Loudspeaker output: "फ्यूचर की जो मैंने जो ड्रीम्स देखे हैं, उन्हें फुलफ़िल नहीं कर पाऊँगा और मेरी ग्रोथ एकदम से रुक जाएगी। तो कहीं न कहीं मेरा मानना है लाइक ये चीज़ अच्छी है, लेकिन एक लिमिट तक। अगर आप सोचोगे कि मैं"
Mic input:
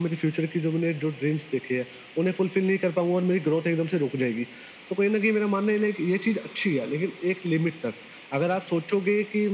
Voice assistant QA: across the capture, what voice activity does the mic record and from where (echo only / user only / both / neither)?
echo only